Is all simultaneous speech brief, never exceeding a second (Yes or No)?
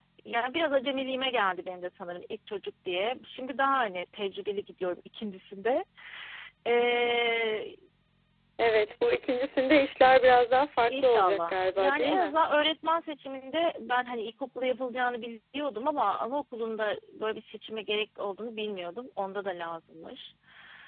No